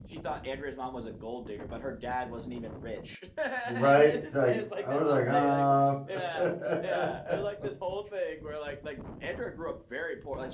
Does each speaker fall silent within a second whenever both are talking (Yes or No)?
No